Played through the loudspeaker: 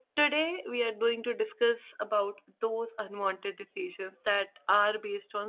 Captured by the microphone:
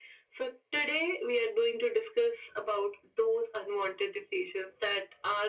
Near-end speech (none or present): none